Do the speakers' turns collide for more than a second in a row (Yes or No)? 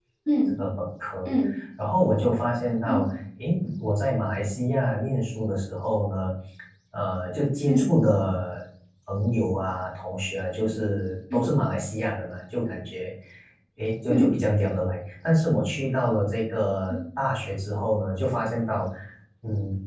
No